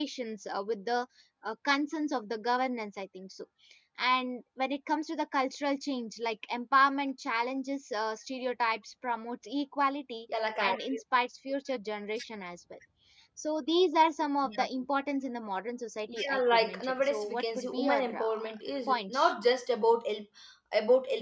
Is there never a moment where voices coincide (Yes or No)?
No